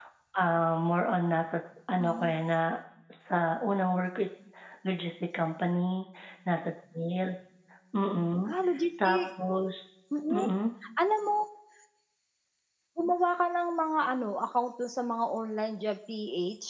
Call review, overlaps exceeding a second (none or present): none